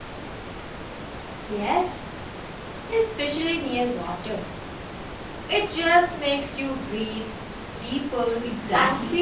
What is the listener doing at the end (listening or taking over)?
taking over